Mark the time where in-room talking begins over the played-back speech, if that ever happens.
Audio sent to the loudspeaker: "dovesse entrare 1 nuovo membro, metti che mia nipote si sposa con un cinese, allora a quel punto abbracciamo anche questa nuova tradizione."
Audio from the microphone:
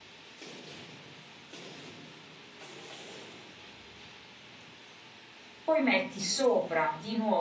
5.6 s

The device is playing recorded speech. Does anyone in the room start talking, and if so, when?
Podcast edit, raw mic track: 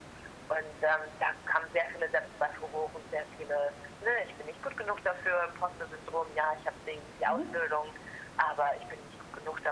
7.2 s

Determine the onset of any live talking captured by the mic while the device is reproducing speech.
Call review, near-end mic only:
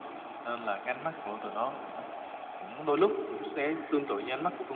none

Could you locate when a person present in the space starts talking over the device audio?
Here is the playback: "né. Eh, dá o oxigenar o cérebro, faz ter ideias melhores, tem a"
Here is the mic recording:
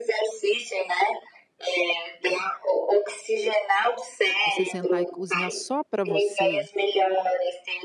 4.4 s

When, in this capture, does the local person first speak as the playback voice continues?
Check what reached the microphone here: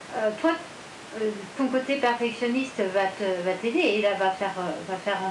none

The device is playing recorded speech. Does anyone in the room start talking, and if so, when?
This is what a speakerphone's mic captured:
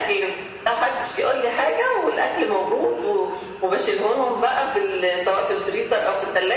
none

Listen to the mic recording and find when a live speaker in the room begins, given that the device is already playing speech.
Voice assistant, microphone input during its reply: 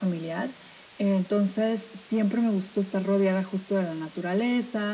none

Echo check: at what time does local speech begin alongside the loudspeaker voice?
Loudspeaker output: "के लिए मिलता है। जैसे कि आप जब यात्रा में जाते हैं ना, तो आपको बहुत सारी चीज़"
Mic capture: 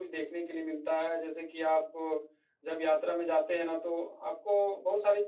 none

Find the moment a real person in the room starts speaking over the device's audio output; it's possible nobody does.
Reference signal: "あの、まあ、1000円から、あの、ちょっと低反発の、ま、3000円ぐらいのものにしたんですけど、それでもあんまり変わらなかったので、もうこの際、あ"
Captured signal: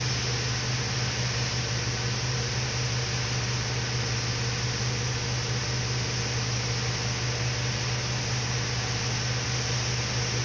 none

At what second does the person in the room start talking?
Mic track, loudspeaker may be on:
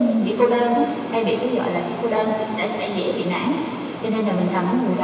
none

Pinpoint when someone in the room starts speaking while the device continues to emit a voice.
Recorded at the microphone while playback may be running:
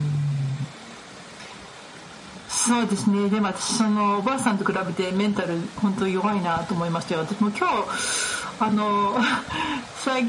none

